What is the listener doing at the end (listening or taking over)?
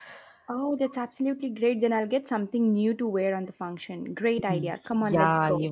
taking over